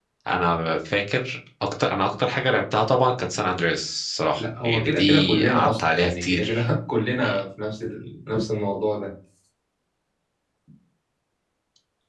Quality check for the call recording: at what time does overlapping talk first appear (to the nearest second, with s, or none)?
4 s